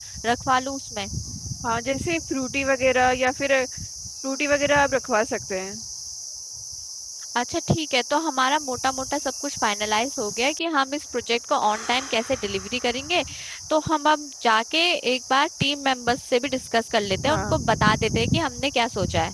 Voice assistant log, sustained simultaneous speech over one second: none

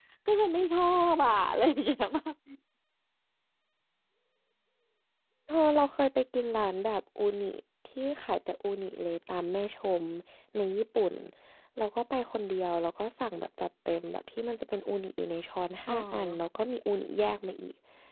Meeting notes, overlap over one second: none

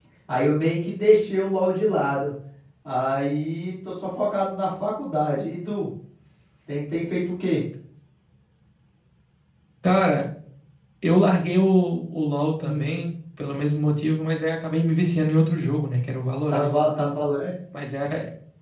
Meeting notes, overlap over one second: none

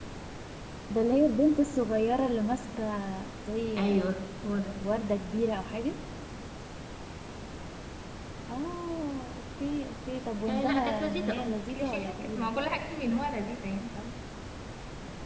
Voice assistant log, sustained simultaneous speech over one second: present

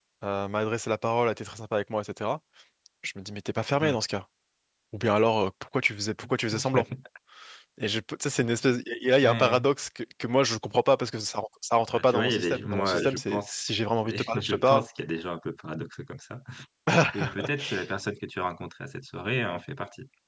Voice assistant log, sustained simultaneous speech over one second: present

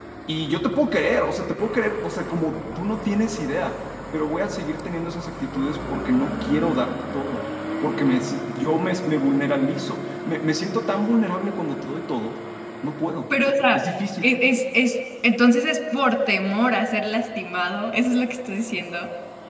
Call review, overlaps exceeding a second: none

